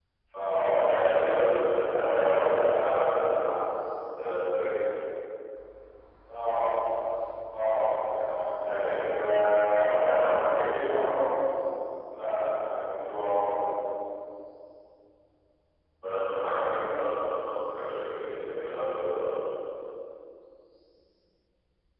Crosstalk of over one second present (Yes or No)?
Yes